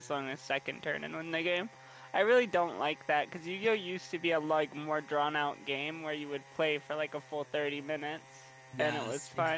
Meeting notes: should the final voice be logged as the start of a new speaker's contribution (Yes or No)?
Yes